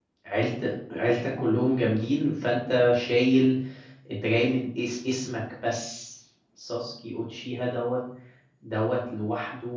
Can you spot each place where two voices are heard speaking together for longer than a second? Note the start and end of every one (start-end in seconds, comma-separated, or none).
none